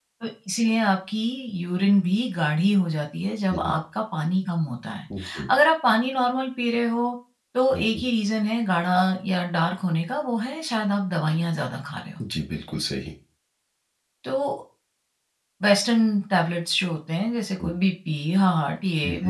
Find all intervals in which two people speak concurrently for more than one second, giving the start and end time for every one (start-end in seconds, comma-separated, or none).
none